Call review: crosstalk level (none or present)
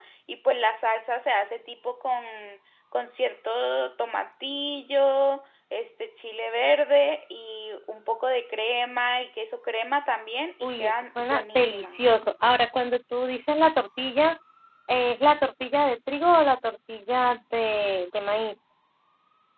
present